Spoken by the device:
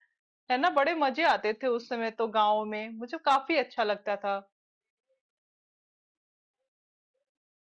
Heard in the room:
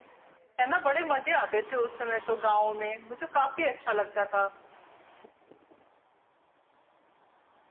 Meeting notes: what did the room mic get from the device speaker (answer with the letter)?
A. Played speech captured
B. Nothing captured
A